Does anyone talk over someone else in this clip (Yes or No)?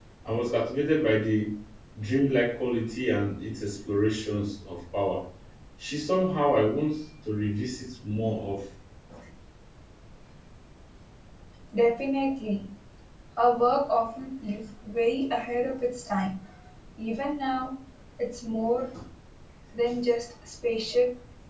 No